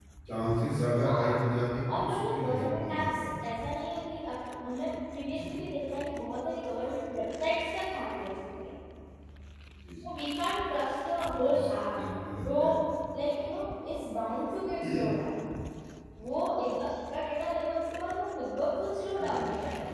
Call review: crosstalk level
present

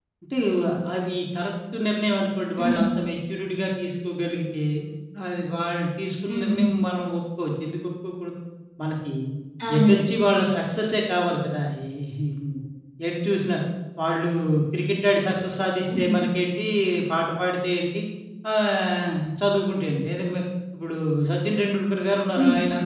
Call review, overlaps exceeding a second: none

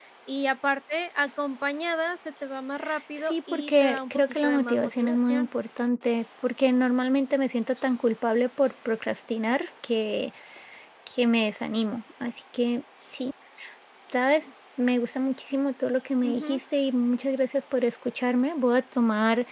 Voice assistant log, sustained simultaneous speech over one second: present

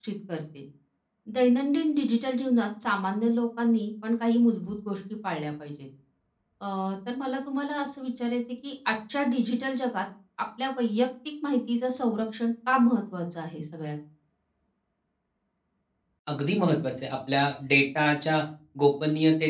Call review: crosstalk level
none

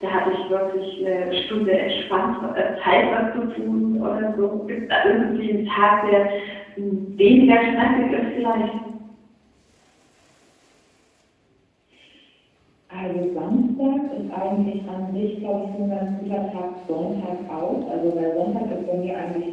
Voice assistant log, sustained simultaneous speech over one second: none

